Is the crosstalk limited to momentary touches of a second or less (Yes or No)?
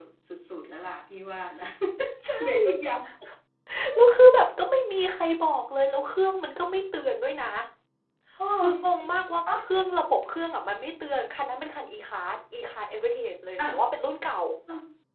Yes